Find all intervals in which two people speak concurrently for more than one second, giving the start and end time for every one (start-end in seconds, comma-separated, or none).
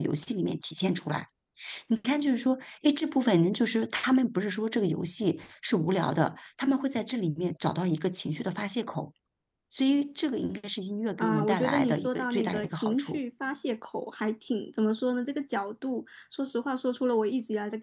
11.2-13.2